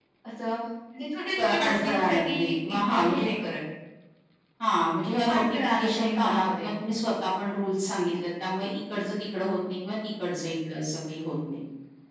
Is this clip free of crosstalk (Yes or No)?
No